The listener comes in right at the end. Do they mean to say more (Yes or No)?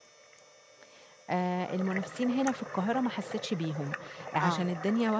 No